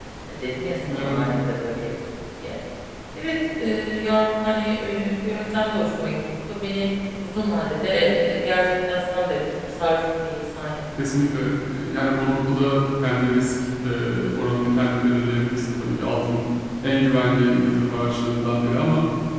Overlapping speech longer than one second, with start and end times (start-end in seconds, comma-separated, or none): none